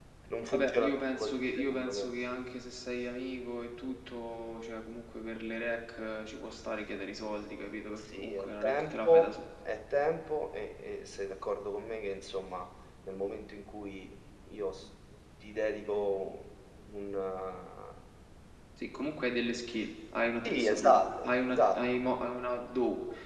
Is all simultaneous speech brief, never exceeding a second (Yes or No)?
No